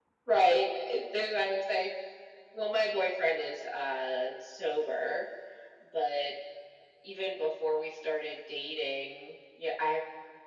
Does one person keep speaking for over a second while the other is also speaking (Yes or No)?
No